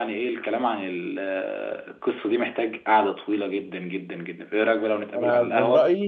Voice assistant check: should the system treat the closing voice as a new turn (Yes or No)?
Yes